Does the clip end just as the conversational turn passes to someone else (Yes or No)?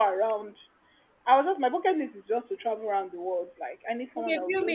Yes